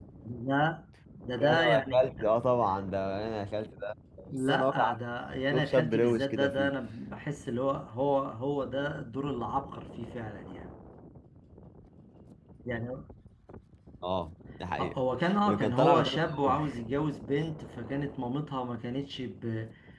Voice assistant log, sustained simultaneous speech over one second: present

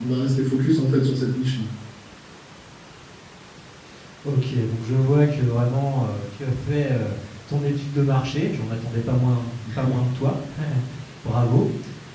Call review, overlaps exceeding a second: none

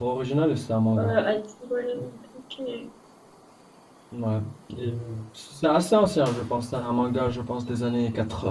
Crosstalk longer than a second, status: none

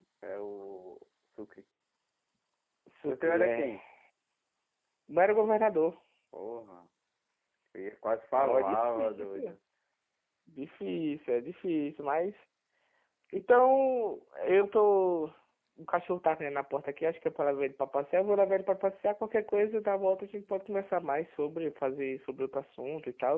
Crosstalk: present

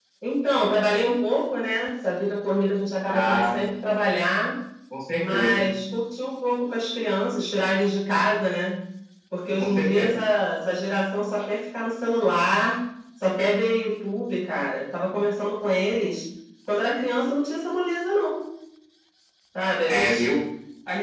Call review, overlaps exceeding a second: none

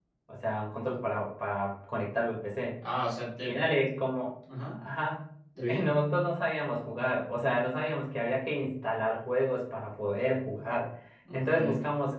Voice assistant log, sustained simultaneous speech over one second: none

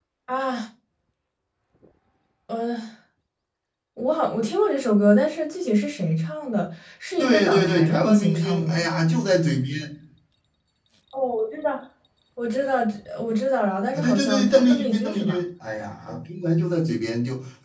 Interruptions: present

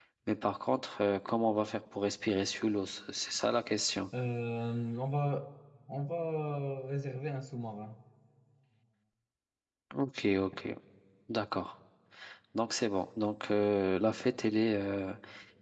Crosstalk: none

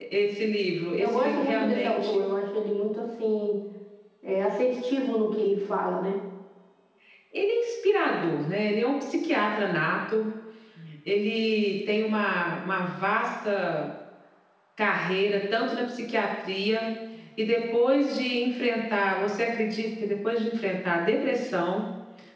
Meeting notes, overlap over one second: present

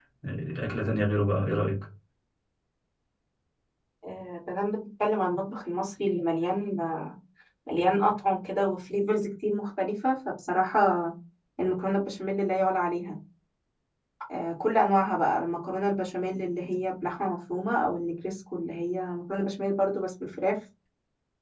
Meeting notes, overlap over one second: none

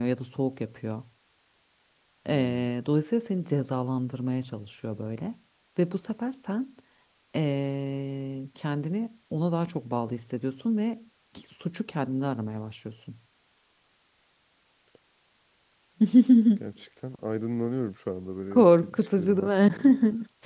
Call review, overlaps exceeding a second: present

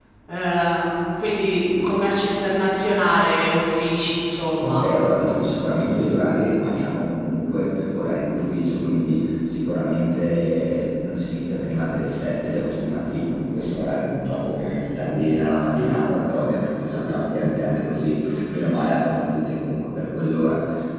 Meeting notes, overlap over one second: none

